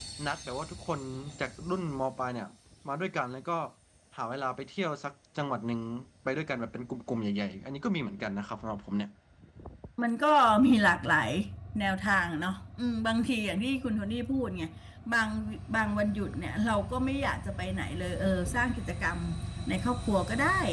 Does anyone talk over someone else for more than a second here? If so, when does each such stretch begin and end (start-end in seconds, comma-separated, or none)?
none